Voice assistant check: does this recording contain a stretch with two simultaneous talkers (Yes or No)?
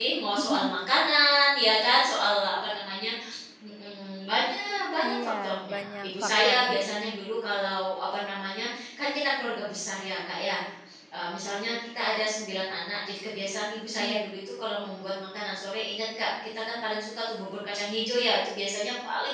Yes